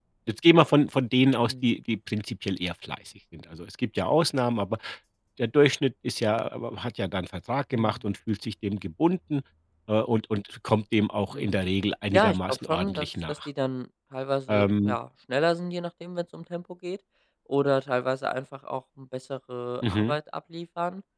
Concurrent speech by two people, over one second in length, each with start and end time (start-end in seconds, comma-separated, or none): 12.1-13.3